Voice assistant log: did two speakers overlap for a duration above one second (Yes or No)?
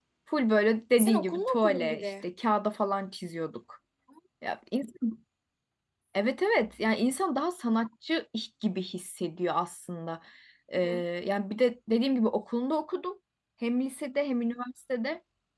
Yes